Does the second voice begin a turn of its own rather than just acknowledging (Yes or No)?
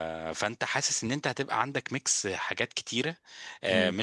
No